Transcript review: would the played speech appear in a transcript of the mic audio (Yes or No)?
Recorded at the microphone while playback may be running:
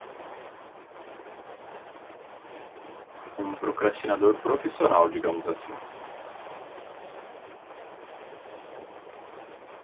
No